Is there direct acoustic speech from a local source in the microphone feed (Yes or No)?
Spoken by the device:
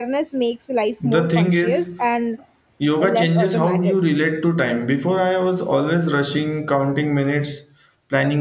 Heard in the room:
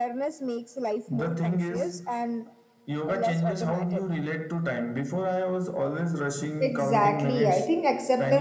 Yes